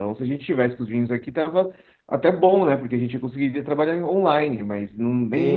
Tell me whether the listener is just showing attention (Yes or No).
No